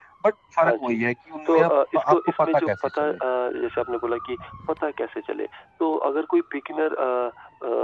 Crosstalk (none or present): present